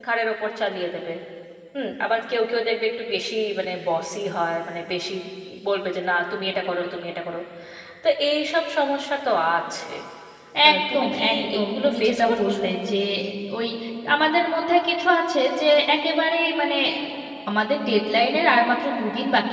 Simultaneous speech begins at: 10.7 s

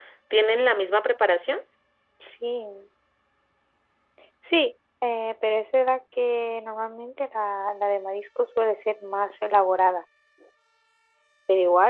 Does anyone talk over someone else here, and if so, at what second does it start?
none

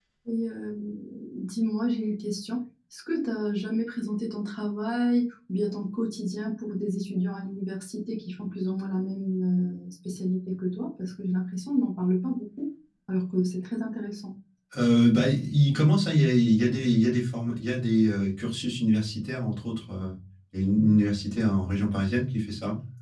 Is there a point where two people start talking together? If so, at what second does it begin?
none

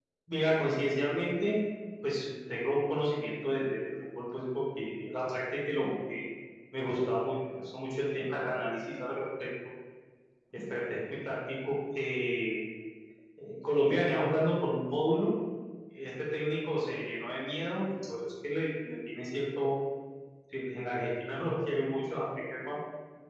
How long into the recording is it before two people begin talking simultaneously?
none

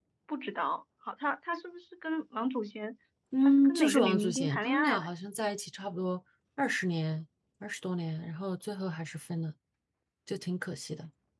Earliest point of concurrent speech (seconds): 3.4 s

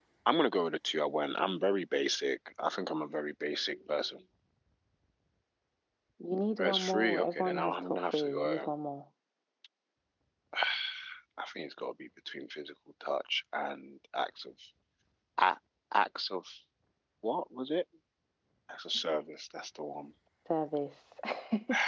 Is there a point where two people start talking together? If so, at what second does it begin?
6.6 s

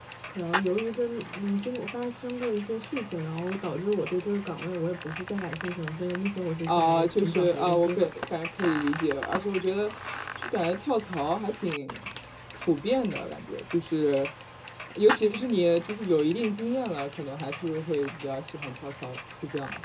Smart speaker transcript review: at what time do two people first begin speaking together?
6.7 s

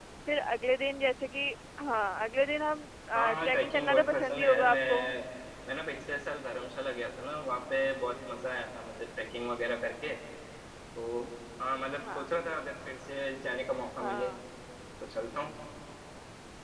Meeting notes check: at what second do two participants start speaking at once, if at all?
3.2 s

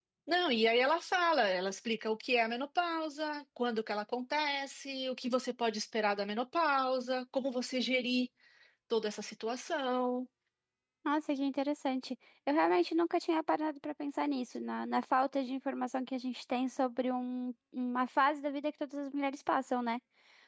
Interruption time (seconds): none

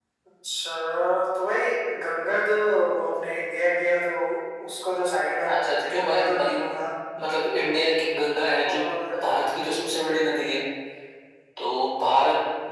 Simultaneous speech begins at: 5.5 s

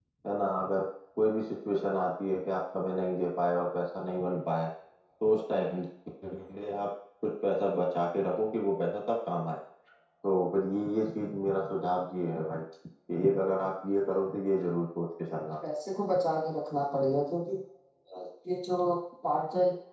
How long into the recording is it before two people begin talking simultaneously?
none

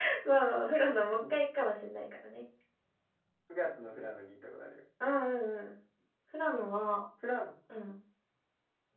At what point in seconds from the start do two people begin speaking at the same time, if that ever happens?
none

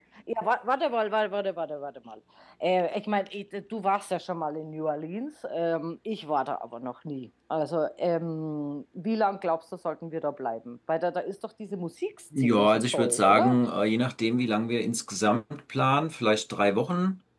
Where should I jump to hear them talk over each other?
12.3 s

